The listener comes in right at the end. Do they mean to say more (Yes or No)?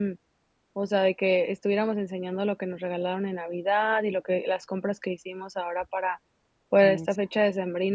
No